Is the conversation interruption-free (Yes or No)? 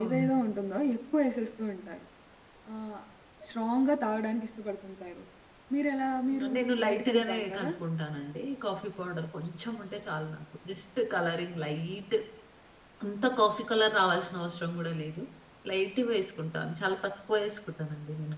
No